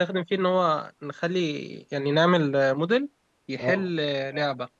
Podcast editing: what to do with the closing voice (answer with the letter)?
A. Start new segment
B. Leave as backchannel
B